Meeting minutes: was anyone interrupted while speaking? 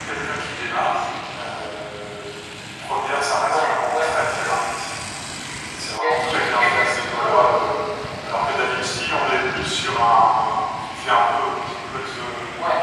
Yes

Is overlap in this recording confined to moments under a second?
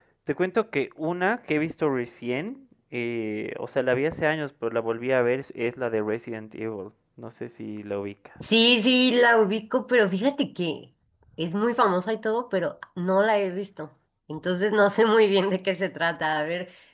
Yes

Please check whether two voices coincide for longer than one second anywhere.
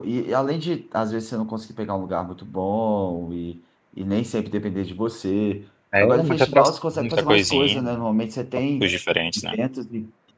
Yes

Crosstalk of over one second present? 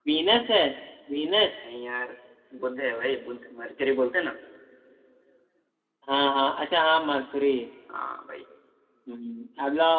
No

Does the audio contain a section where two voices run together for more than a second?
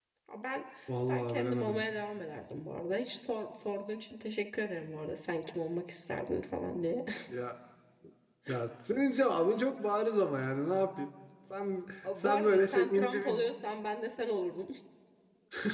Yes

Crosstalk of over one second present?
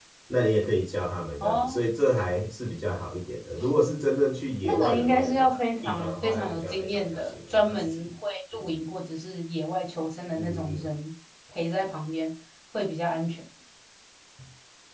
Yes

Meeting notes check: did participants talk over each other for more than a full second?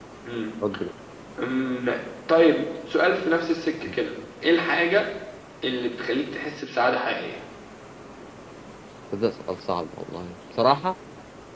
No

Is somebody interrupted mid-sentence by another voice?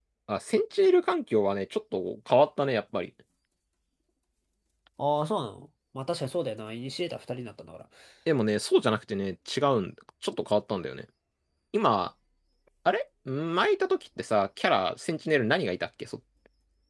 No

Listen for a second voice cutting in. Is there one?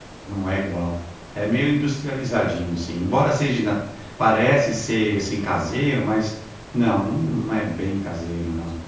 No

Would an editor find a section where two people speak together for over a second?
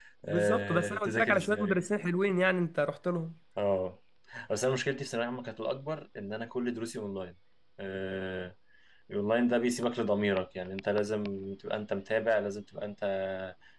Yes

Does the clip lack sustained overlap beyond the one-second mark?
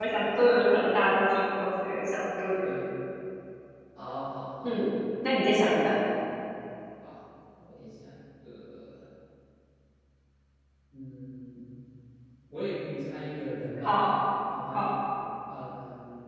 Yes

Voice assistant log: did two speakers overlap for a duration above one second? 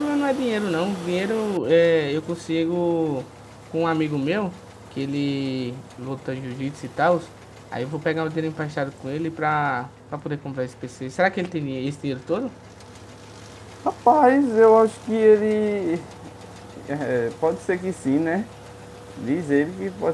No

